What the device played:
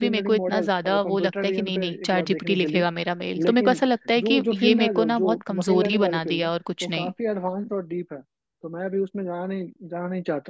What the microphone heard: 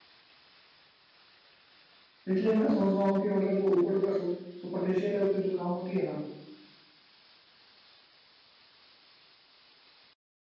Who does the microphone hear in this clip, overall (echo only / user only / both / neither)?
user only